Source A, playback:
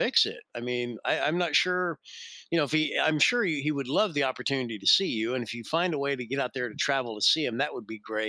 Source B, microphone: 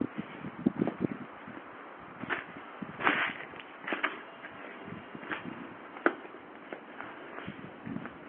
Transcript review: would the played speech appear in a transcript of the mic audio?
No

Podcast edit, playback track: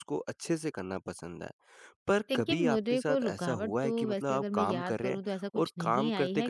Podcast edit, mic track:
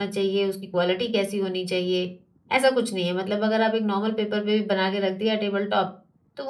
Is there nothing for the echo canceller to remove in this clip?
Yes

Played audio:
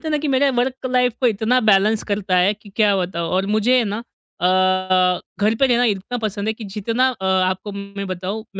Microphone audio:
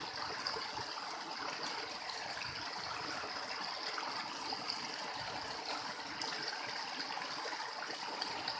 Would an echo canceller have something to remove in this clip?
No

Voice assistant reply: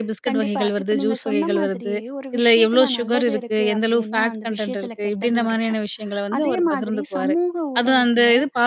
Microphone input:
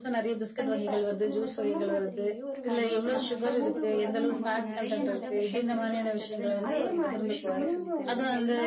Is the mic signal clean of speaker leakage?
No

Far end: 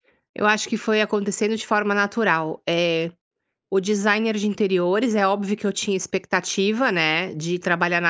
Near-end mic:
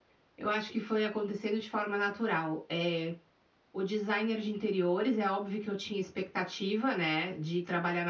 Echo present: Yes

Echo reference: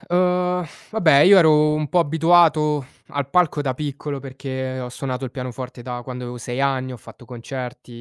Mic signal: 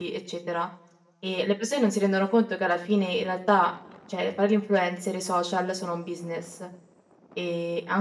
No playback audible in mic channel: Yes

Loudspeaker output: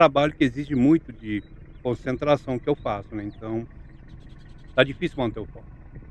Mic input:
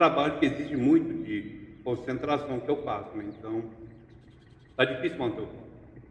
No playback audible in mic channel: No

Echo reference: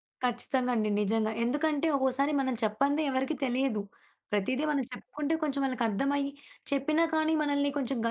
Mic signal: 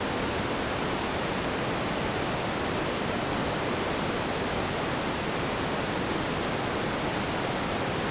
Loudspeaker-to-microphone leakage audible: No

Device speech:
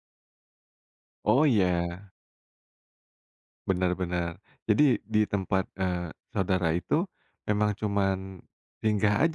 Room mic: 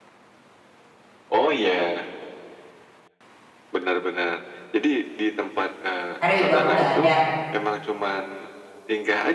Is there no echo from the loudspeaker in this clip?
No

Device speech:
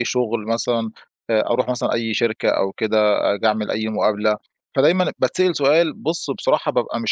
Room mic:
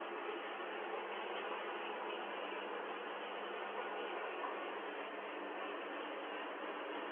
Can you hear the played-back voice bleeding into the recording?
No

